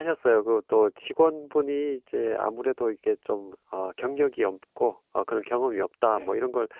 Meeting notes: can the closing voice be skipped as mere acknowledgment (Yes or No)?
Yes